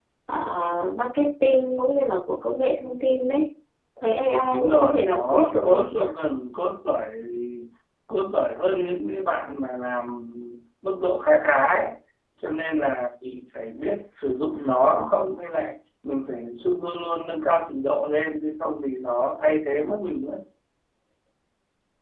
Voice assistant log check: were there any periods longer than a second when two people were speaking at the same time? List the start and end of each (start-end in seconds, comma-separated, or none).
4.5-6.0